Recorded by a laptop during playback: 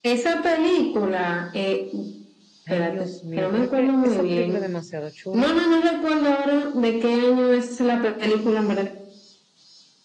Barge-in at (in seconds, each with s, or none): 2.6 s